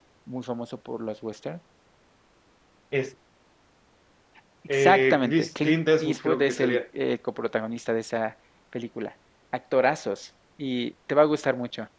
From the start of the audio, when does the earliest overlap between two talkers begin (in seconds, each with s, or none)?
4.7 s